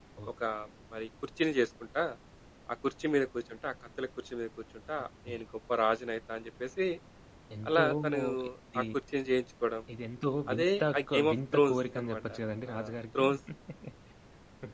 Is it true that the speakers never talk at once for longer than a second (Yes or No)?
No